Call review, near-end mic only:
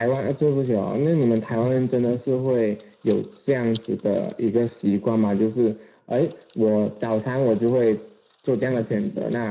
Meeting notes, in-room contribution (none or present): none